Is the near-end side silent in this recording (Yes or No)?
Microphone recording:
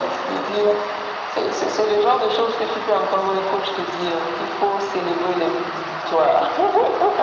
Yes